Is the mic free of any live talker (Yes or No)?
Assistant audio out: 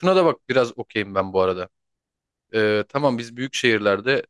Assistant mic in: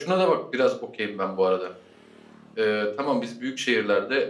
Yes